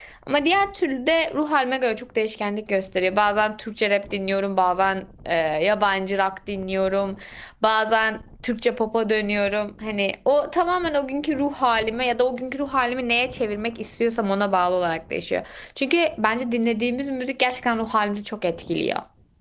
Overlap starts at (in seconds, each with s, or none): none